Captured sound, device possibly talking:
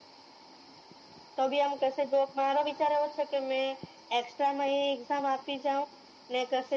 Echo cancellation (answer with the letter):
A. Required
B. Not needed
A